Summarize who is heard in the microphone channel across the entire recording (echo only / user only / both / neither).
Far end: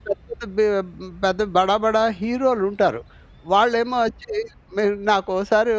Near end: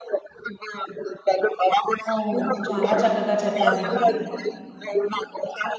both